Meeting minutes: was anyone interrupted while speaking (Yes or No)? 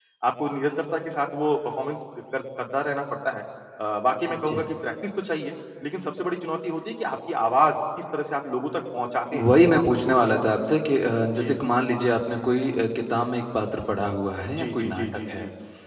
Yes